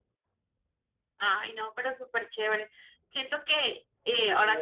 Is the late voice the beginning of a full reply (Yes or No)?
Yes